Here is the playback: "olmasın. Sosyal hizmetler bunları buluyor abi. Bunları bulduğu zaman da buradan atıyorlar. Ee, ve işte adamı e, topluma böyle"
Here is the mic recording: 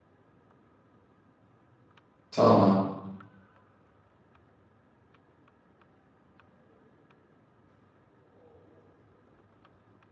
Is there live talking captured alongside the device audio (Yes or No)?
Yes